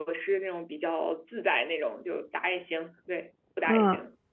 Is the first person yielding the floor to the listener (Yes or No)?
Yes